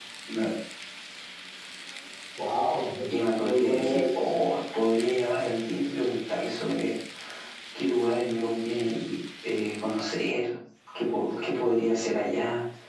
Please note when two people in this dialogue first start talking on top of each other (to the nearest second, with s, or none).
3 s